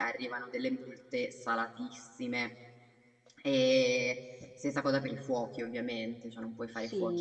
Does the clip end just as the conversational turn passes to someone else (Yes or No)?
Yes